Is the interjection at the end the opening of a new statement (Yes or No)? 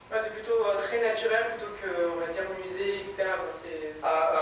Yes